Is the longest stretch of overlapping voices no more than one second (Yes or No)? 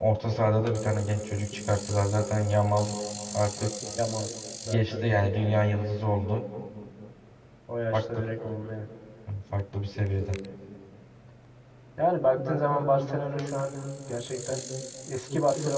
Yes